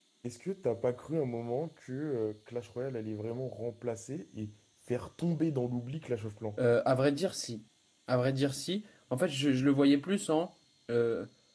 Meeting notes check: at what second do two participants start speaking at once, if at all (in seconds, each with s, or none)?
none